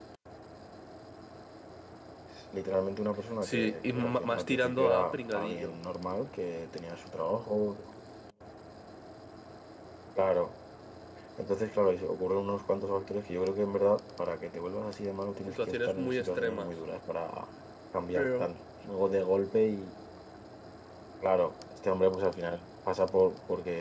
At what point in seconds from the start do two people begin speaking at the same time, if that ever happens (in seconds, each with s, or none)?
3.4 s